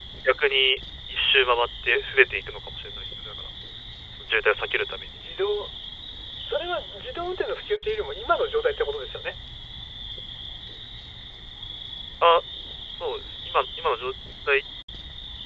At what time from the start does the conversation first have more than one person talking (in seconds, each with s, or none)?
none